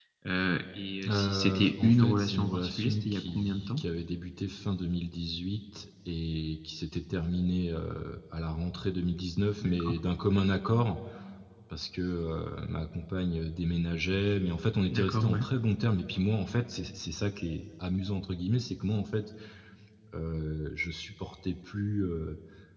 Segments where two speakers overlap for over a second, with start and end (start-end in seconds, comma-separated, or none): 1.1-3.8